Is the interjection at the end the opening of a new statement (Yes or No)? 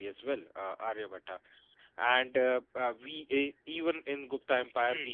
No